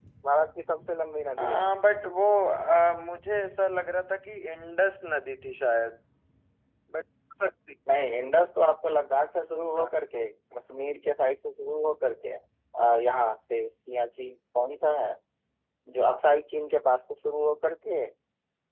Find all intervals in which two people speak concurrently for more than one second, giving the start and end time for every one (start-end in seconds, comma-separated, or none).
none